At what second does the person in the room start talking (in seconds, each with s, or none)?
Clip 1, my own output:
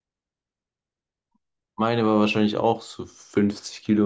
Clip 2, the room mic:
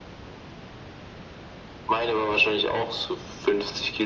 none